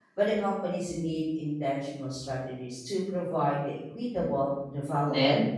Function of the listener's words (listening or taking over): taking over